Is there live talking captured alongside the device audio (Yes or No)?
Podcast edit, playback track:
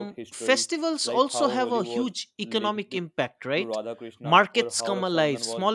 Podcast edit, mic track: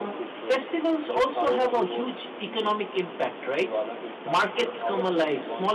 No